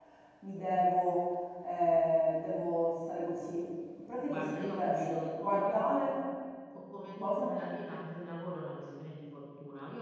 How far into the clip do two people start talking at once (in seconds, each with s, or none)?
4.2 s